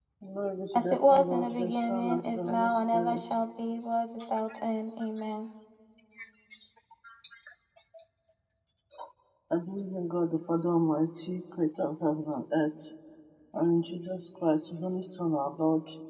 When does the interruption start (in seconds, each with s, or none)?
0.8 s